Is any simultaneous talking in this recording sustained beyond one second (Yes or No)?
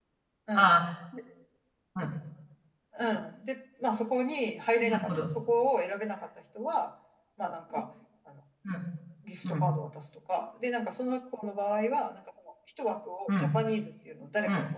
No